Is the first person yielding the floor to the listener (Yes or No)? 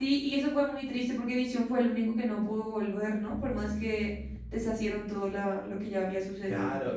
Yes